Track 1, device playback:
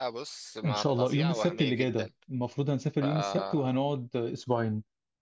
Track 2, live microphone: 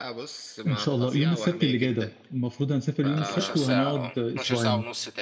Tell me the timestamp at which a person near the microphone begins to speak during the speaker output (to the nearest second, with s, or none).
3 s